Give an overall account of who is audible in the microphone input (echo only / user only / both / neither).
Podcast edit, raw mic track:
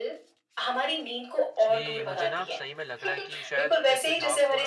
both